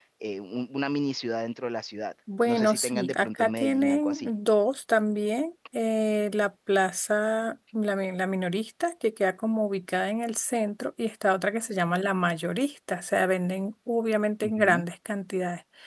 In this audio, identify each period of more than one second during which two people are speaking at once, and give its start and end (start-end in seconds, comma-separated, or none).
2.4-4.3